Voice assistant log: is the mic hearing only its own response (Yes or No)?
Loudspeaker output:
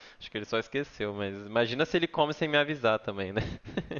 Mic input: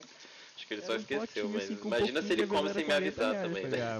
No